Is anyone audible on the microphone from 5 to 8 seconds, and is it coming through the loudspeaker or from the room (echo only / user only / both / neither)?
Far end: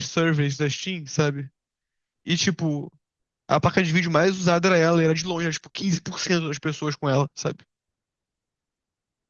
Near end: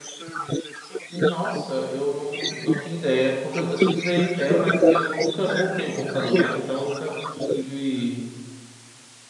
both